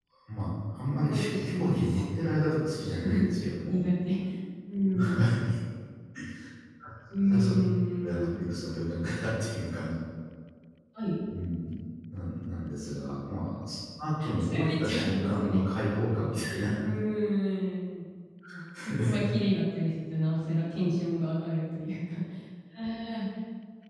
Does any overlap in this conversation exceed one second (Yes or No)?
Yes